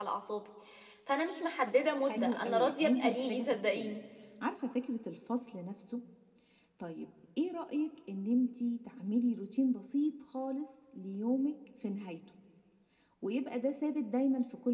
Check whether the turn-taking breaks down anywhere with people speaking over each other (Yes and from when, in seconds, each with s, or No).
Yes, from 2.1 s